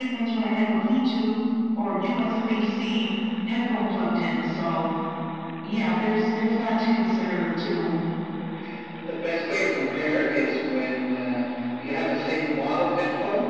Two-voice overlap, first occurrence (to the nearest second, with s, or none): none